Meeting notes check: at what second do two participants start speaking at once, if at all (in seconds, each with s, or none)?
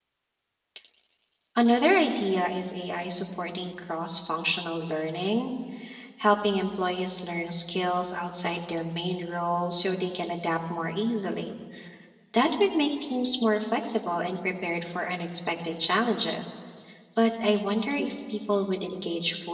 none